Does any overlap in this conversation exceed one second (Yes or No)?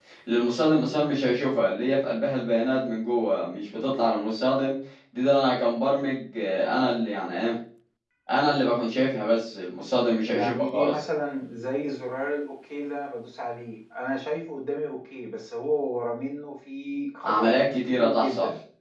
Yes